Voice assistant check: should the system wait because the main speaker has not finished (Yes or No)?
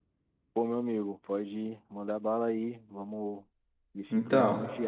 Yes